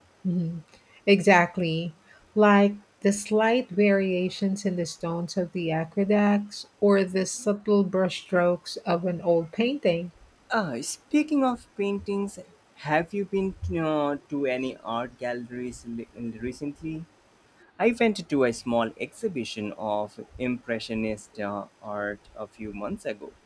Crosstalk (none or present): none